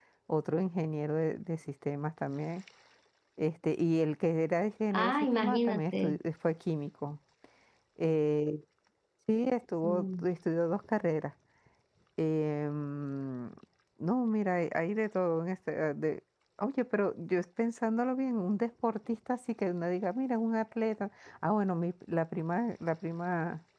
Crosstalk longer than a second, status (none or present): present